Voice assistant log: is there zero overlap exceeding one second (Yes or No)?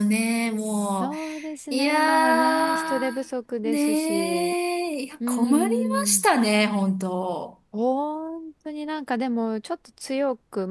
No